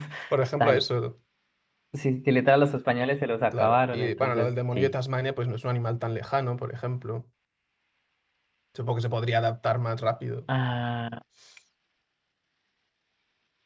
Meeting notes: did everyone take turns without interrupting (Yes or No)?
No